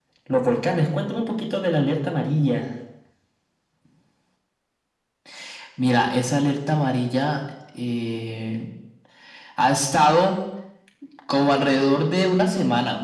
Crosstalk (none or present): none